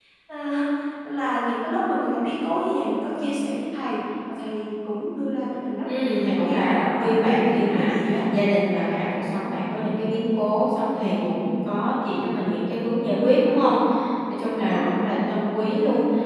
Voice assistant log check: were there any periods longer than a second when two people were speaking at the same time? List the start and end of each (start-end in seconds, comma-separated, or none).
5.8-8.2